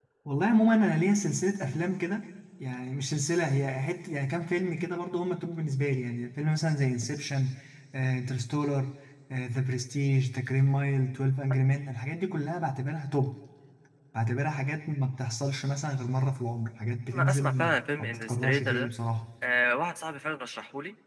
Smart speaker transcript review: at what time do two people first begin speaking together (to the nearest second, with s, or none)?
17 s